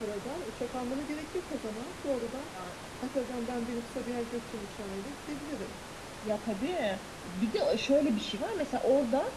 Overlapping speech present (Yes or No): No